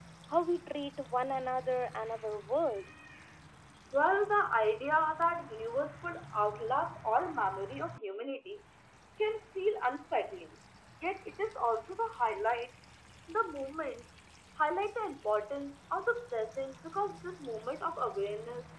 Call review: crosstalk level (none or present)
none